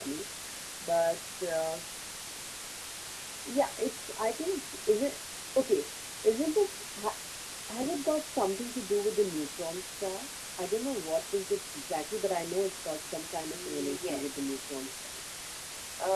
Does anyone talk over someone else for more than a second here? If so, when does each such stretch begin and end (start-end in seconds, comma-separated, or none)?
13.4-14.7